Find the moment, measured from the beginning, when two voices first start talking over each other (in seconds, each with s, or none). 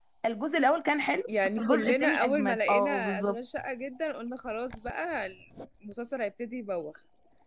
1.6 s